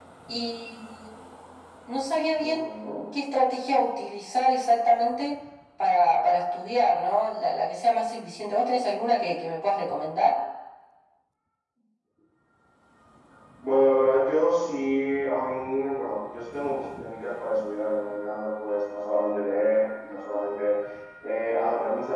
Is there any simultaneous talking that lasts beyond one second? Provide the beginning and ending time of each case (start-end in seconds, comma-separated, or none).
none